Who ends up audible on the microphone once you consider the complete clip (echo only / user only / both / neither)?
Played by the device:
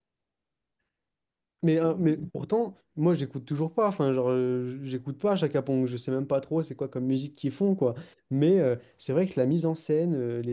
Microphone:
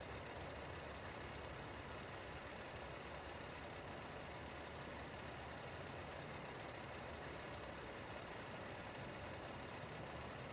neither